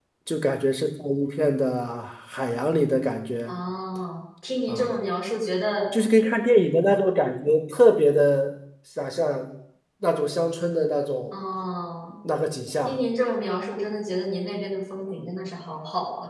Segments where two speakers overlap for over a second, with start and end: none

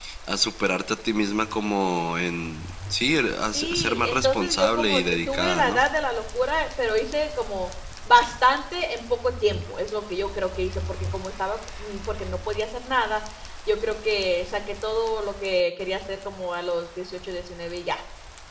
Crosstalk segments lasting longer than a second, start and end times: 3.5-5.8

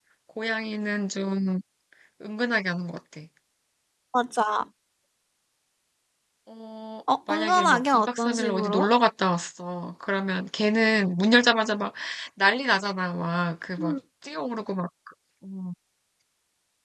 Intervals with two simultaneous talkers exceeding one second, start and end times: 7.3-8.9

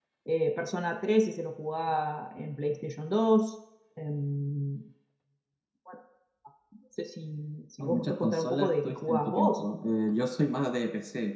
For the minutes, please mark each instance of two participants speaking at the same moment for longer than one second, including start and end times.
7.8-9.6

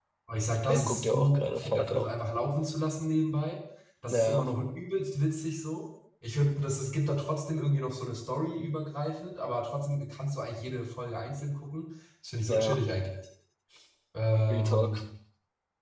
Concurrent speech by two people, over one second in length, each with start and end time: 0.7-2.1

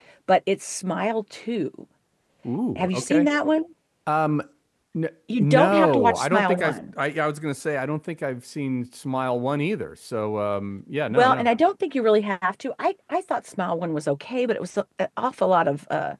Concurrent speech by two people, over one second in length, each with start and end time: 5.4-6.8

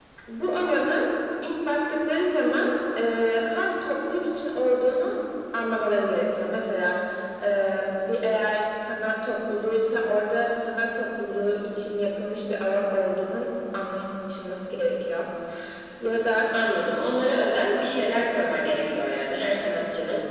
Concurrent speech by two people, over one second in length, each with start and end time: none

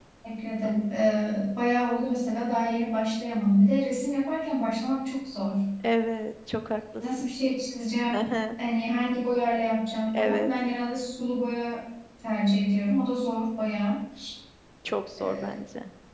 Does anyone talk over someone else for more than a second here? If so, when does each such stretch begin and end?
none

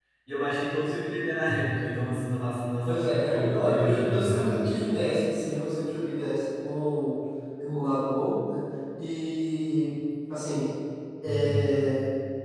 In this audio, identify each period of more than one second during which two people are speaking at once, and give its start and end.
2.8-4.6

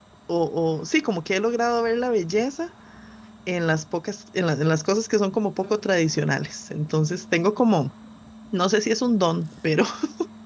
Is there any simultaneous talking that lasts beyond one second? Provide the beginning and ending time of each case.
none

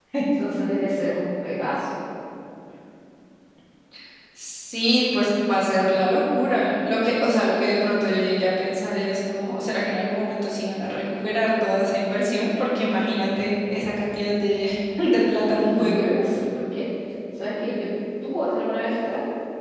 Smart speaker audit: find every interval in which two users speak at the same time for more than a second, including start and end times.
none

